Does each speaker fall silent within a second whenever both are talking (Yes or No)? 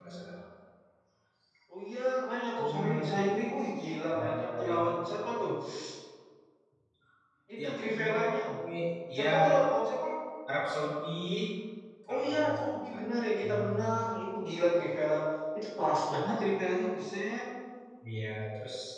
No